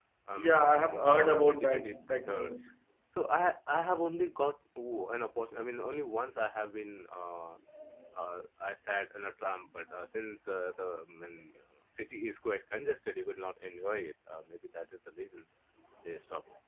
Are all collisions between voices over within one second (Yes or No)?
No